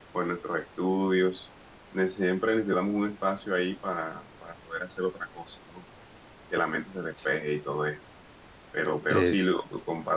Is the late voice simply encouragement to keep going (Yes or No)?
Yes